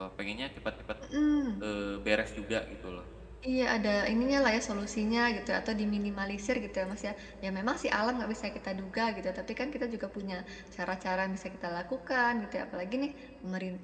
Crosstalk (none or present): none